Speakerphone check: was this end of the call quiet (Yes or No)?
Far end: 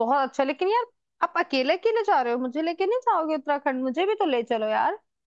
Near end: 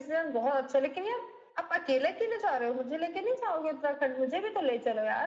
Yes